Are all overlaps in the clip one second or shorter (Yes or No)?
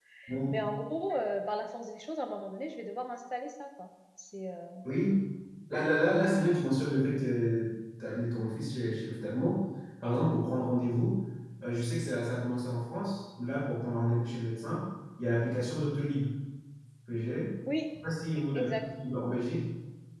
Yes